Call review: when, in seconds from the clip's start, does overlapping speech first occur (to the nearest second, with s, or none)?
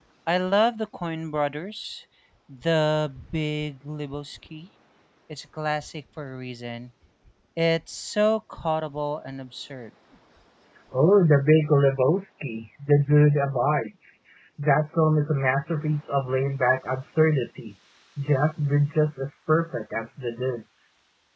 none